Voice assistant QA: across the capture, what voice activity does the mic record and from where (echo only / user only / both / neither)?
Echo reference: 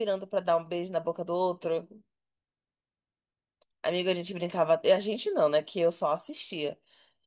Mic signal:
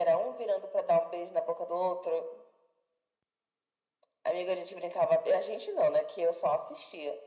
echo only